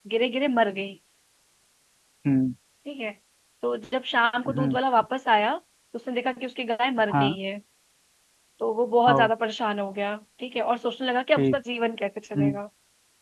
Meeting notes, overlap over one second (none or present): none